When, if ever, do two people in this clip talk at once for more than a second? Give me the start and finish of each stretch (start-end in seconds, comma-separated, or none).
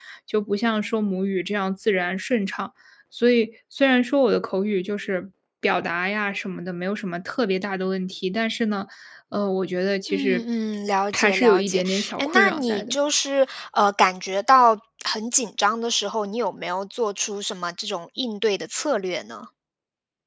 11.1-12.9